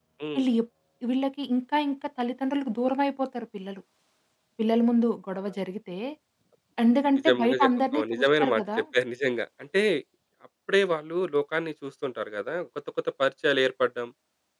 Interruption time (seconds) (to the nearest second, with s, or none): 7 s